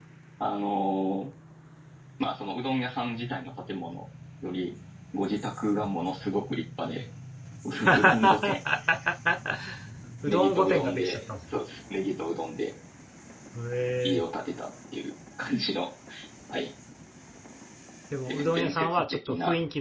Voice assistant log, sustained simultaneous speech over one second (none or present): present